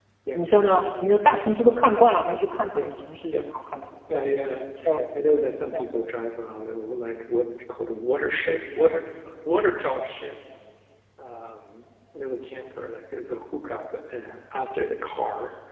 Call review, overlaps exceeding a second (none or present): none